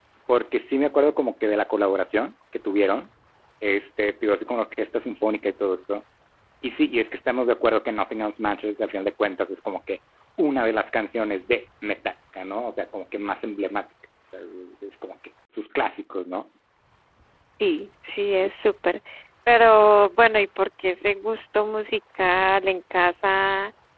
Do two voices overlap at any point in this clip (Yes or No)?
No